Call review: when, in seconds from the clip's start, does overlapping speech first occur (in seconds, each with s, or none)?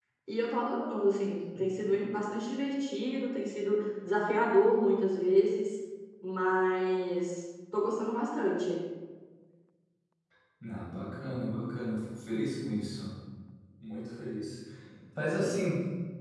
none